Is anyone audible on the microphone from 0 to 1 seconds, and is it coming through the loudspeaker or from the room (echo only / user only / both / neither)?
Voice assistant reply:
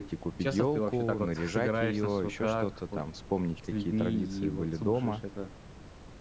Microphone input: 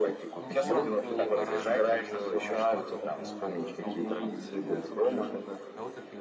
both